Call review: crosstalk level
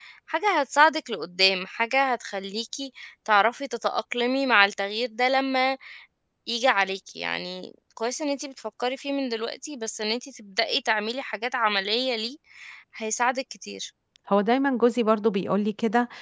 none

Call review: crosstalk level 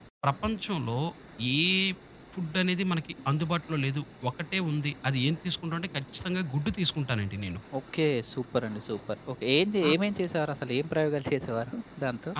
none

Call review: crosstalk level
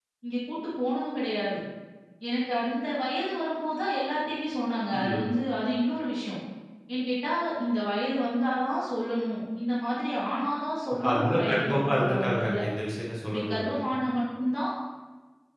present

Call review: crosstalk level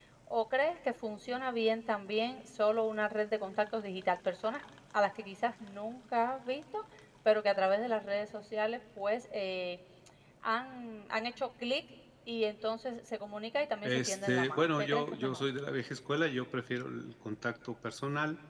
present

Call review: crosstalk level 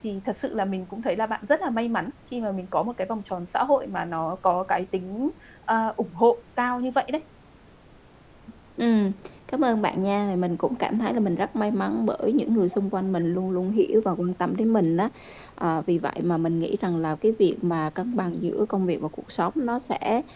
none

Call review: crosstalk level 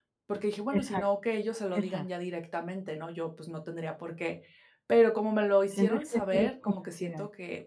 present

